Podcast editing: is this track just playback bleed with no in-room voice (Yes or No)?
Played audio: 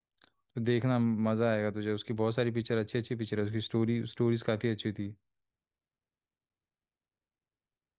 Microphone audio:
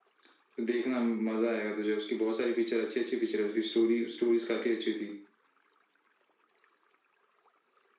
Yes